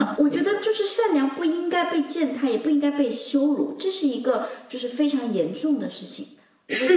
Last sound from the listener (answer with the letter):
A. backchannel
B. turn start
B